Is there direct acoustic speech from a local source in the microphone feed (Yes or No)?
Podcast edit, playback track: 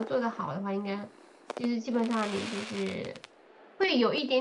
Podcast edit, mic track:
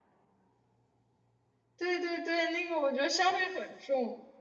Yes